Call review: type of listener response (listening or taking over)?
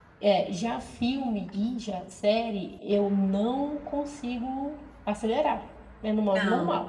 taking over